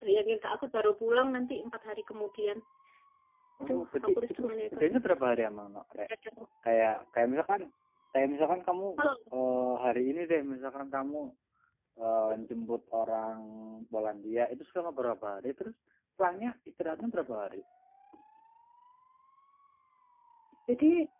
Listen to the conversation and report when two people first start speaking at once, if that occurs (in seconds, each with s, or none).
3.6 s